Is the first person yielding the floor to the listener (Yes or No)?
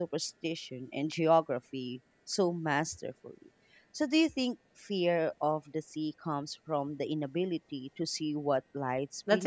Yes